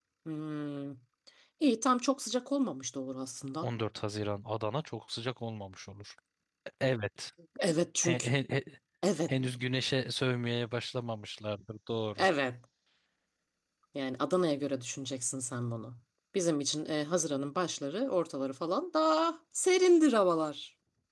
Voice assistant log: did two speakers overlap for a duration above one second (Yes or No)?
No